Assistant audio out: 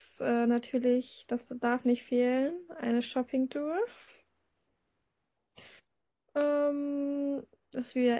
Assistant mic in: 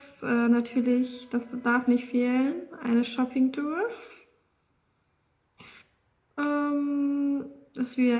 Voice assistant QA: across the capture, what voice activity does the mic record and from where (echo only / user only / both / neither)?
echo only